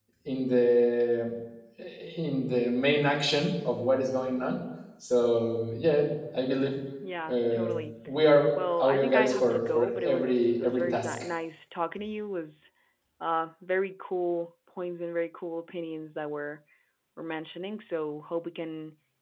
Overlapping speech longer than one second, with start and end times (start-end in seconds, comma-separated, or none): 8.8-11.1